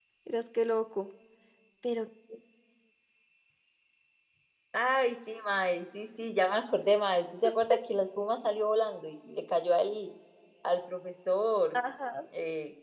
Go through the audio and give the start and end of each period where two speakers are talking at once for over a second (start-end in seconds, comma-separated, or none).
none